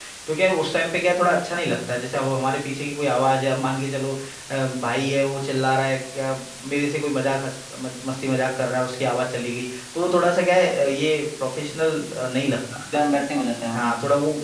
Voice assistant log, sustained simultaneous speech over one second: none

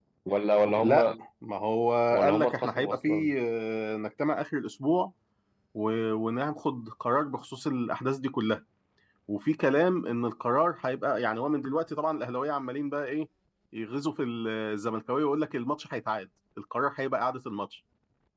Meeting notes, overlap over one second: present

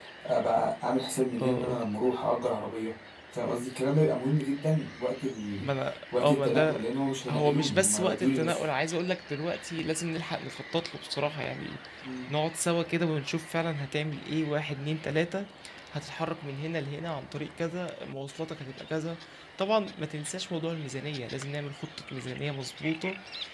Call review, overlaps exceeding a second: present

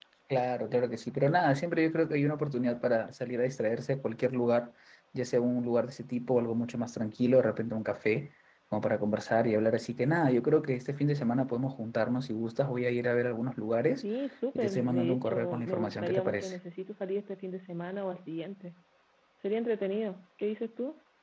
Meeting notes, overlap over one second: present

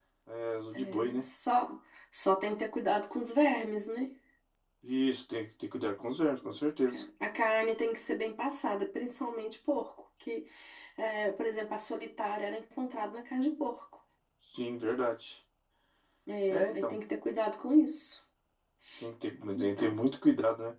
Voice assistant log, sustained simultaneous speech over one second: none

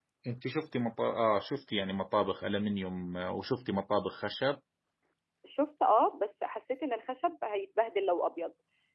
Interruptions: none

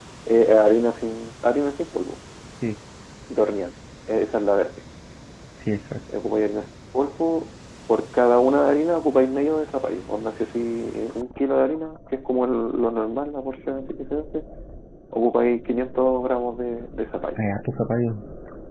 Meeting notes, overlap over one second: none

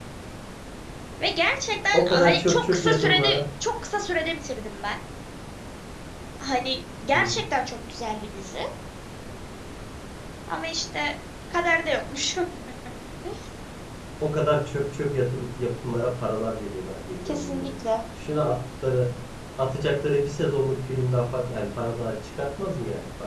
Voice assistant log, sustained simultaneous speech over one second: present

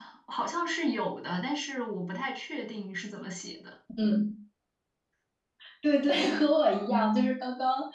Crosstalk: none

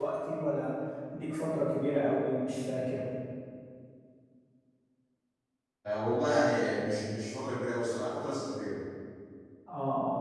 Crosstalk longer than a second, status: none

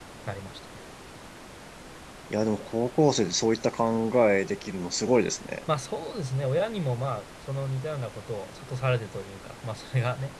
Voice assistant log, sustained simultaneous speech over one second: none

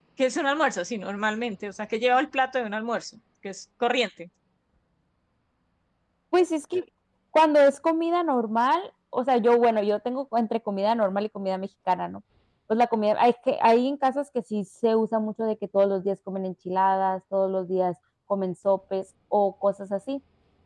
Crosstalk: none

